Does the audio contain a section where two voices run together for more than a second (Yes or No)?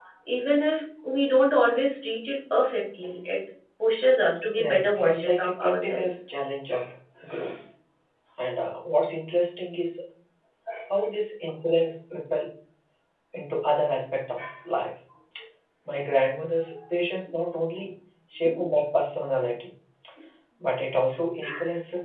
Yes